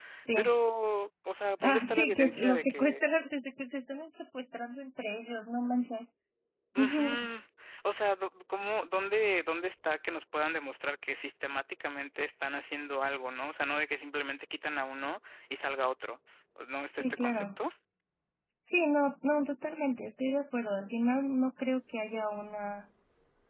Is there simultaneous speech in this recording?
Yes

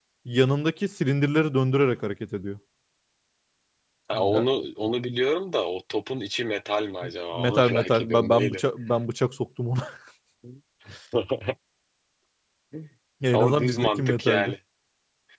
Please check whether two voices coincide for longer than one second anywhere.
Yes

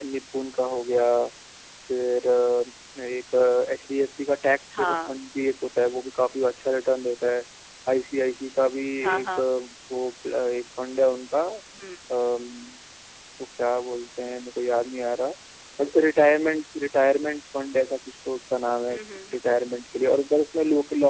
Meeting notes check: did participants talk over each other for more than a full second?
No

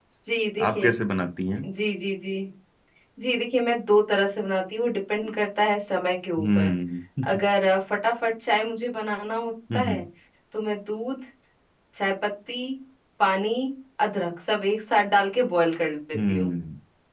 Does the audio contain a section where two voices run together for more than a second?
No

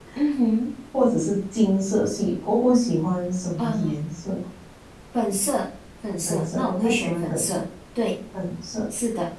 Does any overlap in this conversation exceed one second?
Yes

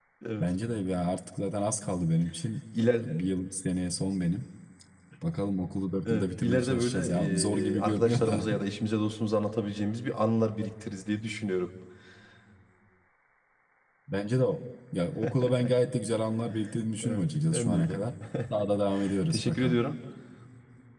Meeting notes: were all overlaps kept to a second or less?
No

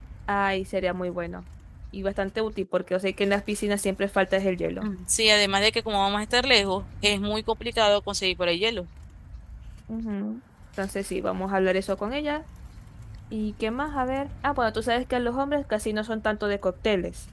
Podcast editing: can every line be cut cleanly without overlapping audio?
Yes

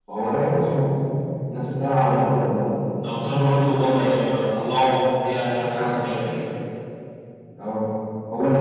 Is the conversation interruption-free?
Yes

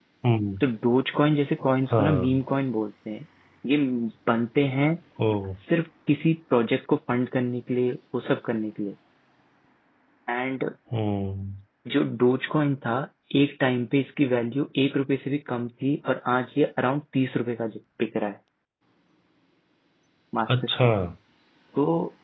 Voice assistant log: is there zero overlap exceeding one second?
Yes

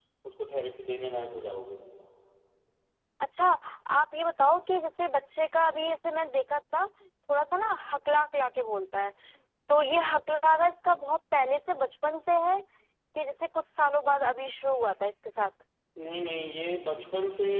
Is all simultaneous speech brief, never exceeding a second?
Yes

